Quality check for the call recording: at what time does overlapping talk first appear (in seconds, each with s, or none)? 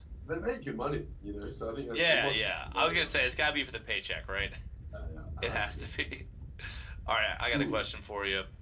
1.9 s